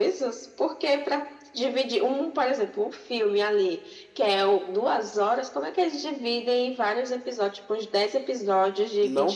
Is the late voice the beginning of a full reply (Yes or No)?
Yes